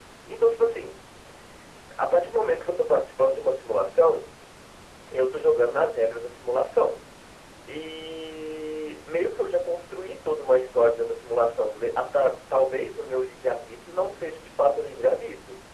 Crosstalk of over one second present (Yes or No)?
No